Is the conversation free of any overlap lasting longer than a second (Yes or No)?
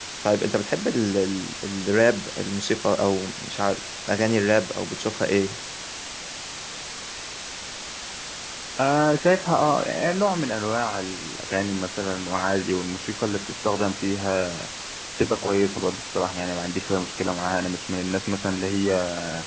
Yes